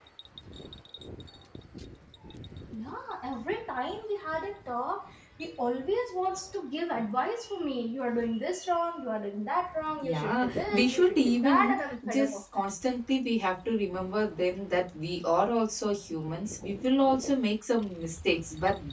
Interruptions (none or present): present